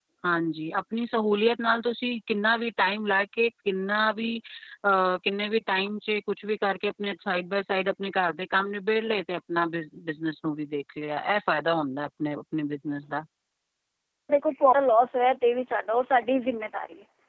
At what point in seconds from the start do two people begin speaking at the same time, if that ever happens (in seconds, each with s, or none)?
none